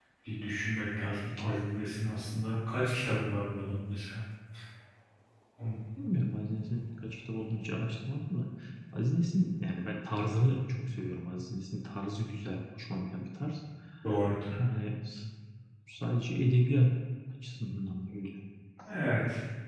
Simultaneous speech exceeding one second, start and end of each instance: none

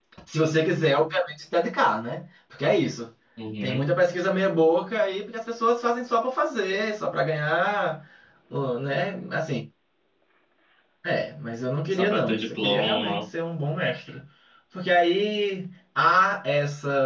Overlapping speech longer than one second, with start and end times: 11.9-13.2

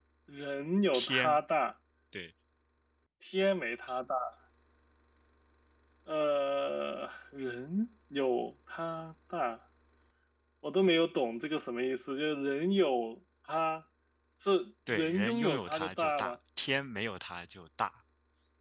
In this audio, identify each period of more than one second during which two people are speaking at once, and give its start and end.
14.9-16.4

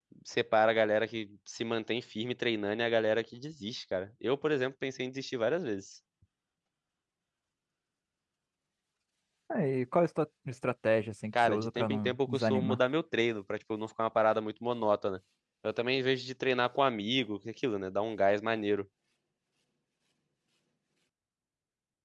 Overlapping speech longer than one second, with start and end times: 11.3-12.8

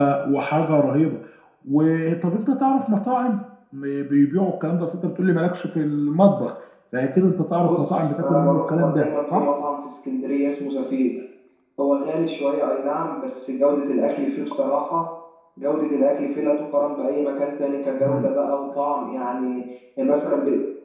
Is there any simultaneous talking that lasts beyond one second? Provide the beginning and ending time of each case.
7.6-9.5

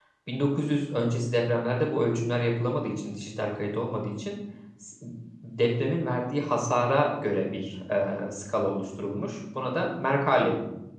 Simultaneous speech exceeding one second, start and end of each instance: none

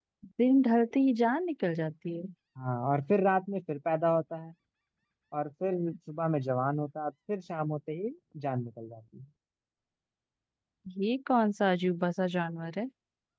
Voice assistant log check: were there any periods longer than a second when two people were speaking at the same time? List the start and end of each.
none

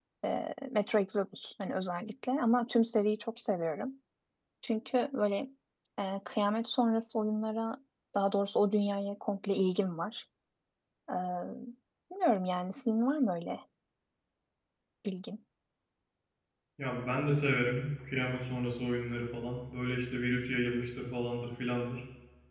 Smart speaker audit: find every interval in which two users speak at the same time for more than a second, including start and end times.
none

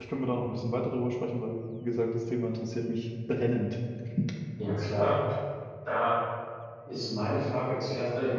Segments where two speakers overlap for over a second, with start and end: none

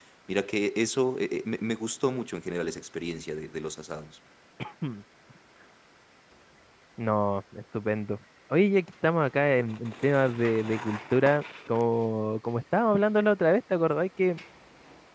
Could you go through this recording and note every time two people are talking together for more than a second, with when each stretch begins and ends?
none

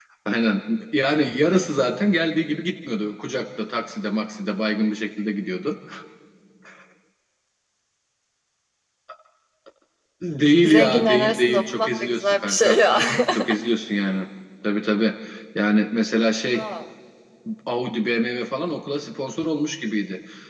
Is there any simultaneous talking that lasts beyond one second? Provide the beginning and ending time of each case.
10.6-12.8

